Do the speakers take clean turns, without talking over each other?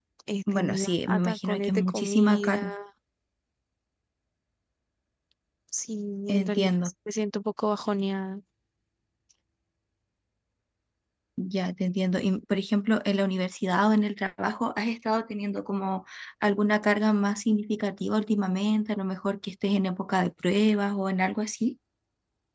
No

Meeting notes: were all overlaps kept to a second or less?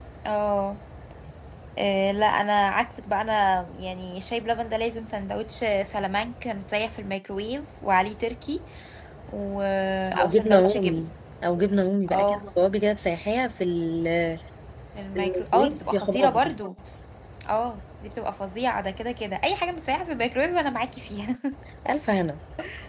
No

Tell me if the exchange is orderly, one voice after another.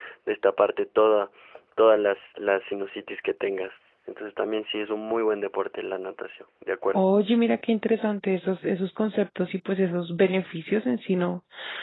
Yes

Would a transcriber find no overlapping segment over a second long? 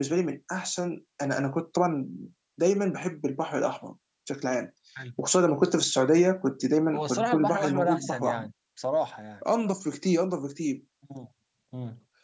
No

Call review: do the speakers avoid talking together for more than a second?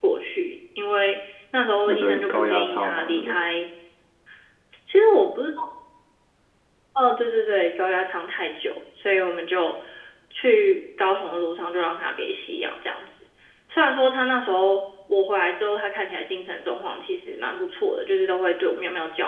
No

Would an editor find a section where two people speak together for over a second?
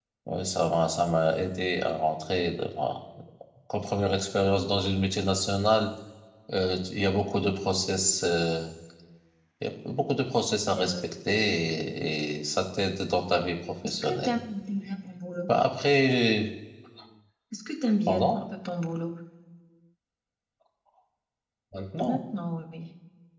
No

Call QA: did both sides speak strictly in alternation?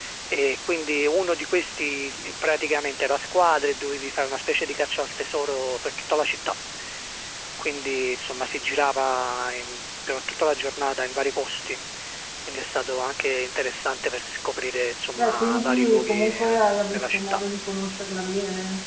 No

